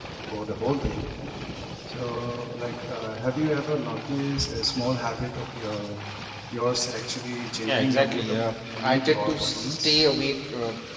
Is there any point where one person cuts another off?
Yes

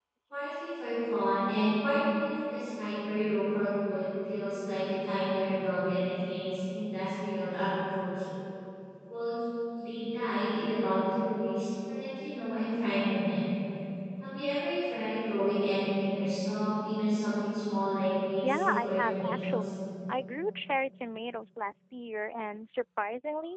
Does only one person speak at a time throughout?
No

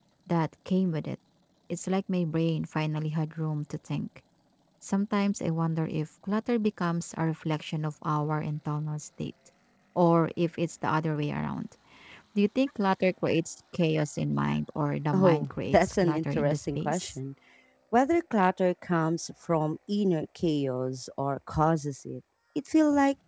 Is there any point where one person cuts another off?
Yes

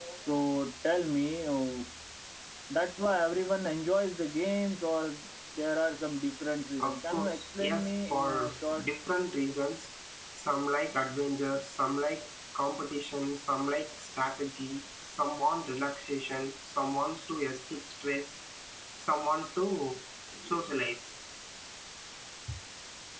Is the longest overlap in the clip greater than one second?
Yes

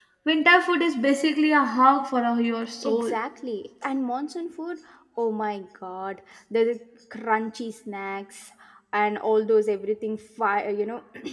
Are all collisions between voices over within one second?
Yes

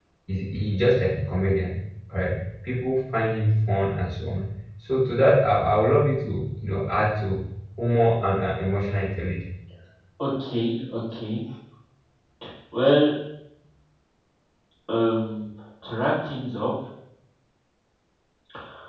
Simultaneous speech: No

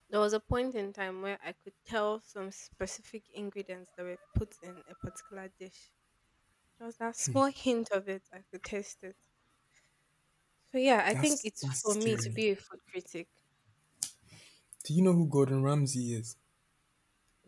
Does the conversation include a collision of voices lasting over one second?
Yes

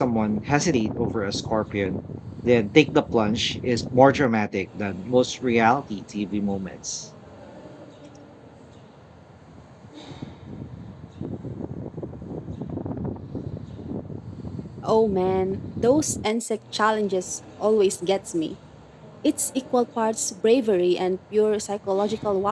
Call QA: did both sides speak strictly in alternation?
Yes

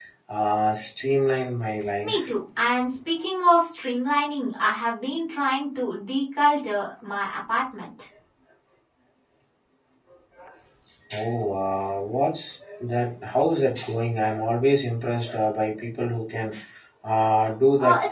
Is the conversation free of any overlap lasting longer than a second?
Yes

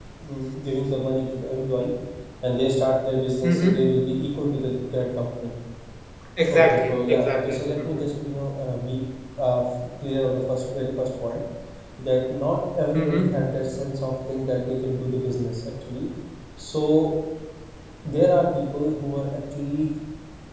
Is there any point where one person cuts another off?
Yes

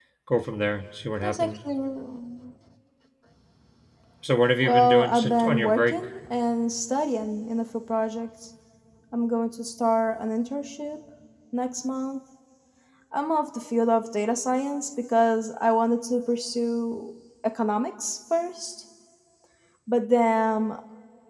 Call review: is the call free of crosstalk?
No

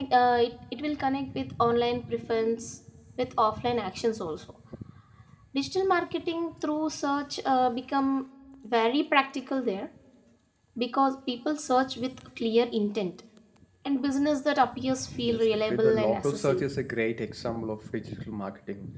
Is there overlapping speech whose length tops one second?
Yes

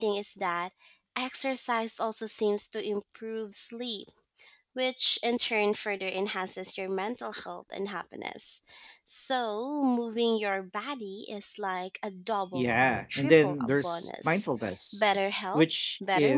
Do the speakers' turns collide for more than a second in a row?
Yes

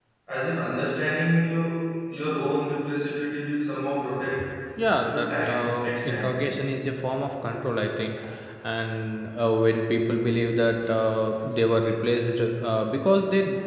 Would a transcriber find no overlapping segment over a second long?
No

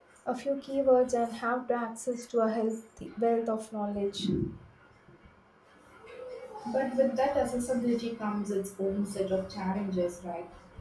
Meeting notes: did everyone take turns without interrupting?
Yes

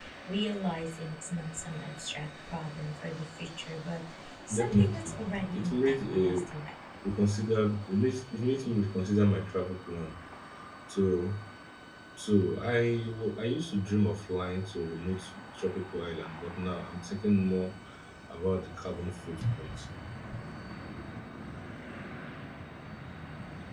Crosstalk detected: Yes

